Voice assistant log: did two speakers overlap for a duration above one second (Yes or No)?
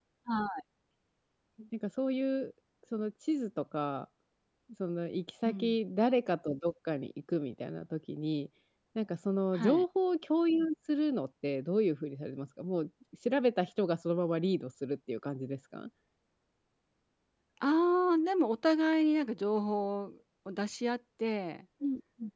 No